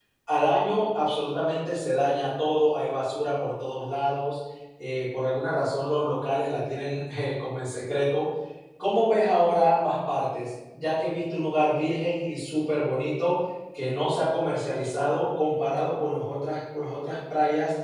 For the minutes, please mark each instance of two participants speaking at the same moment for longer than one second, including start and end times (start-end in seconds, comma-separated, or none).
none